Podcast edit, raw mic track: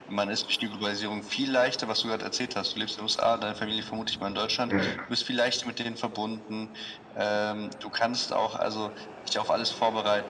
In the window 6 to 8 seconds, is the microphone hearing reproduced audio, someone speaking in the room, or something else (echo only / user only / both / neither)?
echo only